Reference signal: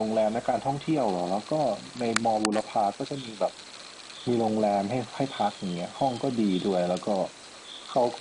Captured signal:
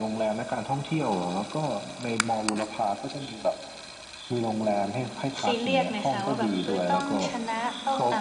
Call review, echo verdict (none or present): present